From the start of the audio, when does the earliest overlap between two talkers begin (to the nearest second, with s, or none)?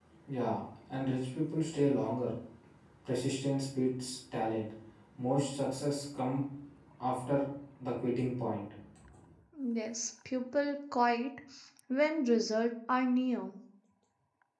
none